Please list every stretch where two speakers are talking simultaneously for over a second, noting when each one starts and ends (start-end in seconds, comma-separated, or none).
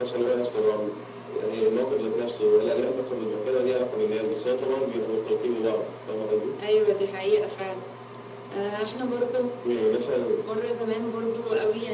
none